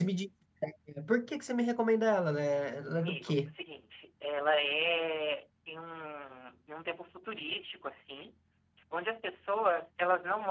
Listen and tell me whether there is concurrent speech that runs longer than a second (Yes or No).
No